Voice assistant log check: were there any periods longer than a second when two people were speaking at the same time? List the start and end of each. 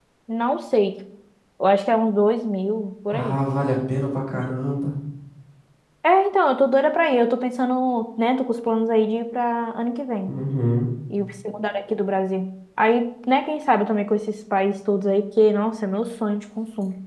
none

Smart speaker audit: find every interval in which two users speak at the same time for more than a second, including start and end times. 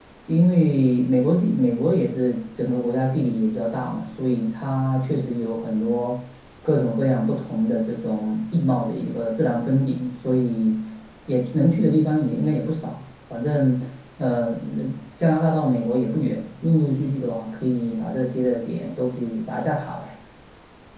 none

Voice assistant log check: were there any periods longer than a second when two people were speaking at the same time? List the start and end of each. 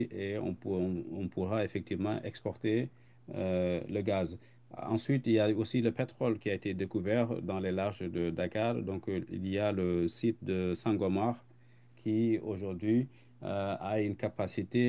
none

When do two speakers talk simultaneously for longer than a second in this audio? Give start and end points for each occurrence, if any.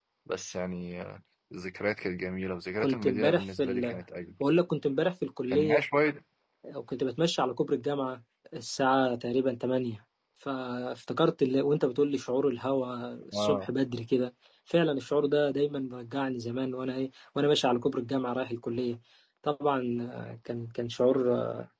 2.8-4.0

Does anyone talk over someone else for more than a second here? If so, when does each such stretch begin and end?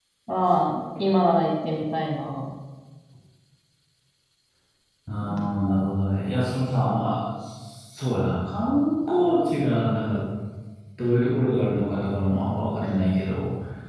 none

